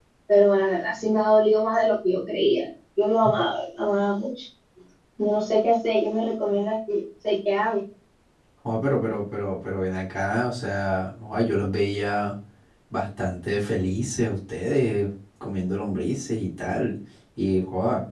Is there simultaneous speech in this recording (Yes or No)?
No